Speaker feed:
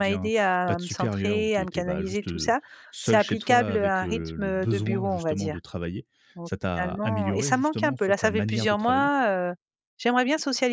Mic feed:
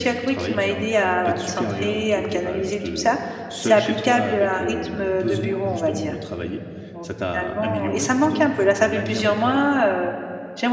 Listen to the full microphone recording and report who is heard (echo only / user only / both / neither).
echo only